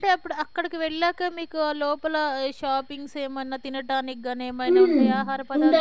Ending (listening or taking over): taking over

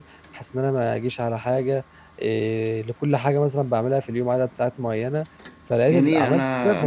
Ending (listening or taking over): taking over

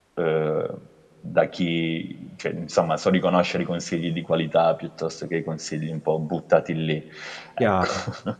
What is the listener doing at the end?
taking over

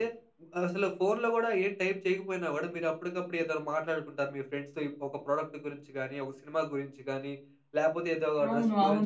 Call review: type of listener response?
listening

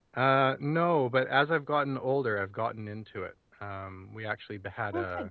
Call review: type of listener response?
listening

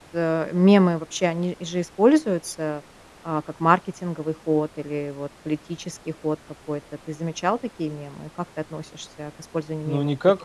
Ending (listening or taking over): taking over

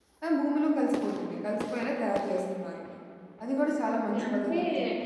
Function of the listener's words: taking over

